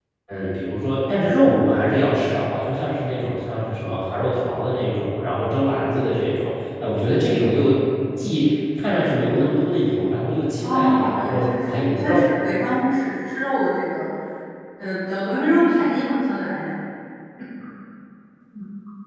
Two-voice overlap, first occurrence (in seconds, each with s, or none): 10.6 s